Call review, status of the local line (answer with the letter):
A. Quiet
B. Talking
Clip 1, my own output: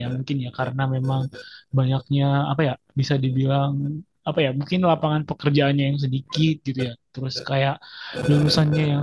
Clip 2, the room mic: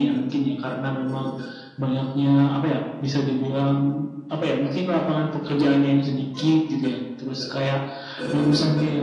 A